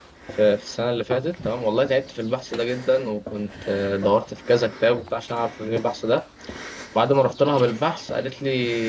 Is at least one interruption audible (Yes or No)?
No